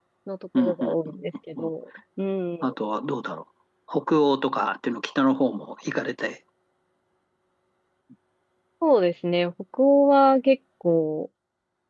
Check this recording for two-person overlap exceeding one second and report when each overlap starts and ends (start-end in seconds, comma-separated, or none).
none